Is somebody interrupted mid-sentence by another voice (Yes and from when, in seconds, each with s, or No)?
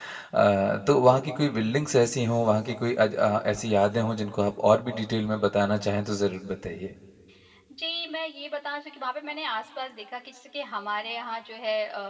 No